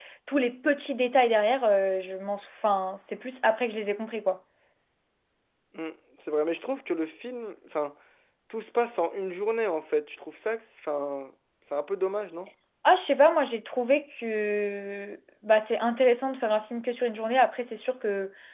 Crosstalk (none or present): none